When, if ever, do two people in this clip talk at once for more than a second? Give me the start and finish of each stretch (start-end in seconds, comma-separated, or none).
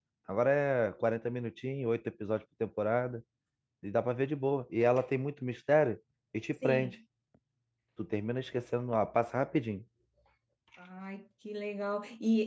none